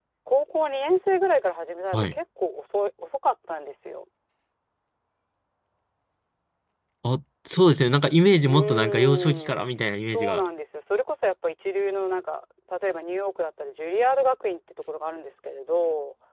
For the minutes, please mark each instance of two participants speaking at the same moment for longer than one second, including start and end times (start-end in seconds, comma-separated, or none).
8.4-9.6